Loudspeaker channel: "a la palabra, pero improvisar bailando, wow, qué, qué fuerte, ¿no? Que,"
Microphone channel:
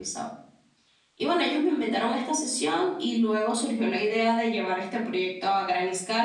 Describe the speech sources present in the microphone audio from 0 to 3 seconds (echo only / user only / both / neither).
user only